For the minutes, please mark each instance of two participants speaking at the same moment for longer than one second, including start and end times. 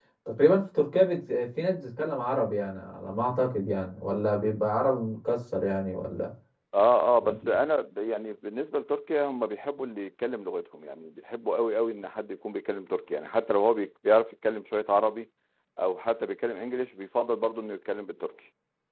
none

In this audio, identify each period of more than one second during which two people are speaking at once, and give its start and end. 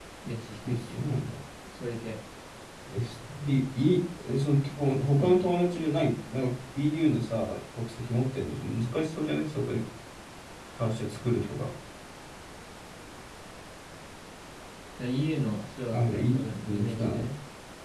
15.9-17.3

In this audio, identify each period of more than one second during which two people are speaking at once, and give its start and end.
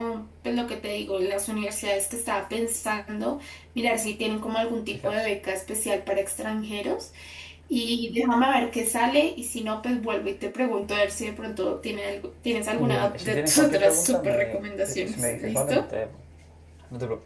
12.8-15.8

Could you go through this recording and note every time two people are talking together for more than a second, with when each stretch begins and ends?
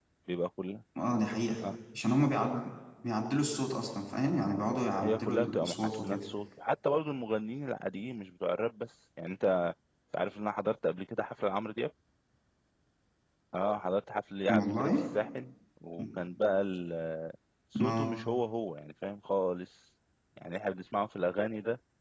5.0-6.3

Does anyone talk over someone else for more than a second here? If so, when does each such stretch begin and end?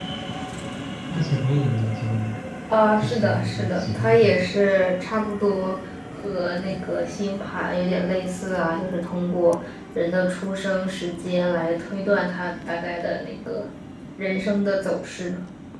3.0-4.5

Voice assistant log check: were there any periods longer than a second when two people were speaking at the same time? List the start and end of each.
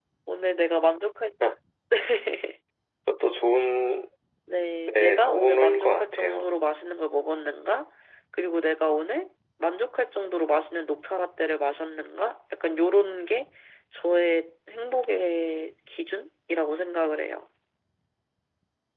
4.9-6.5

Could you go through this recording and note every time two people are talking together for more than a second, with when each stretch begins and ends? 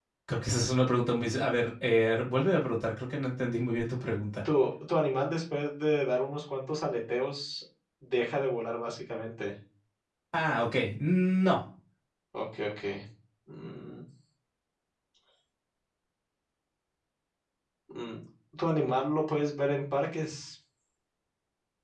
none

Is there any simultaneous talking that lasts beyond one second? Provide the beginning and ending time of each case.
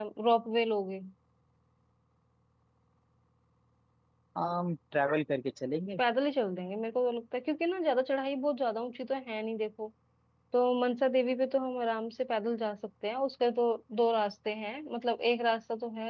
none

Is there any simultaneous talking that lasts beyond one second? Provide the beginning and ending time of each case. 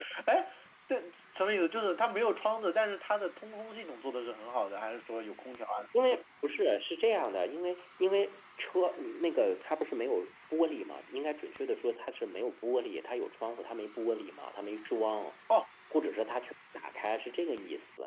none

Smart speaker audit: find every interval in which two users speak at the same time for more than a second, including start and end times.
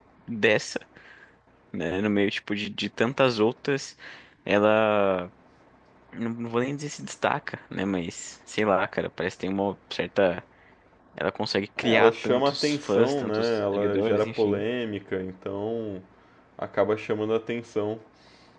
11.8-14.6

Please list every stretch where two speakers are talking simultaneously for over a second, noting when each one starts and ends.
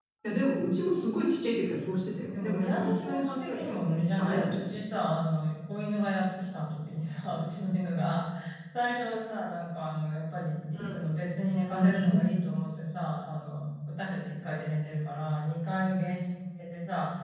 2.3-4.8

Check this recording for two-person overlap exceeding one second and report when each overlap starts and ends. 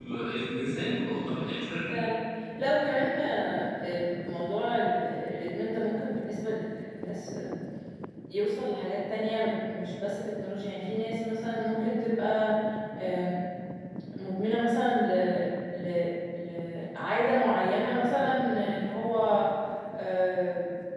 none

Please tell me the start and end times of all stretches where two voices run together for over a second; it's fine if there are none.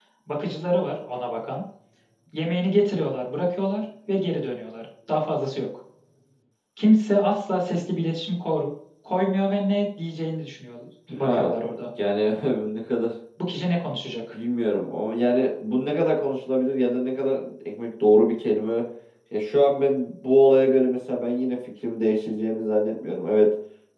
none

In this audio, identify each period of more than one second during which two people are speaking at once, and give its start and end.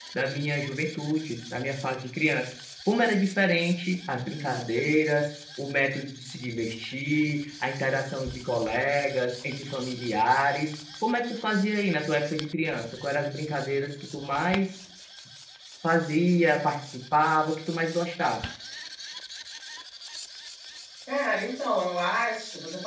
none

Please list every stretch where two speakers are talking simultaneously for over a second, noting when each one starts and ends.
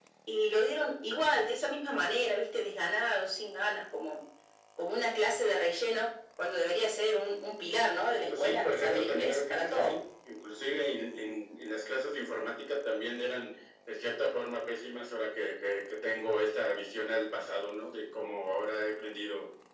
8.2-9.9

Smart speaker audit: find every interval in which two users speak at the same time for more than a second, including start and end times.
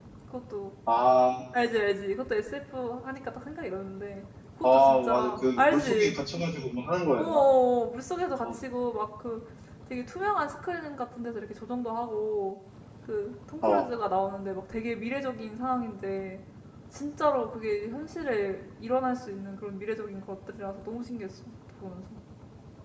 4.6-6.2

